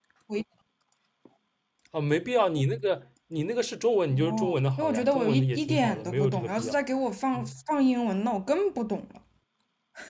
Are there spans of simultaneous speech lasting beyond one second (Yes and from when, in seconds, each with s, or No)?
Yes, from 4.1 s